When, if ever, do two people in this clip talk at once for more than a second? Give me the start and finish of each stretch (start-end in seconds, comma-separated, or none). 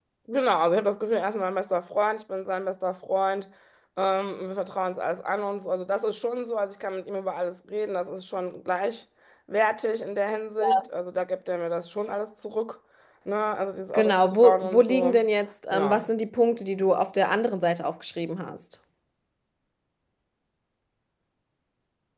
13.9-15.2